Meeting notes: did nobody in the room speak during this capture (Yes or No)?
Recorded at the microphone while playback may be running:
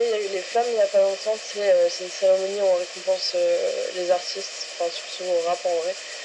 Yes